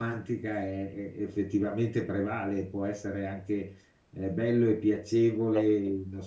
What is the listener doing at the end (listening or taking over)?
listening